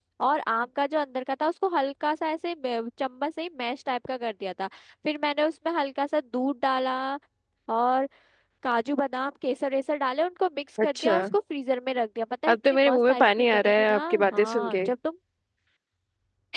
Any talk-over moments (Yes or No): Yes